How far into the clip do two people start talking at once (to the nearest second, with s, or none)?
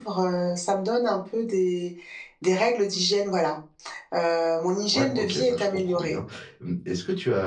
5 s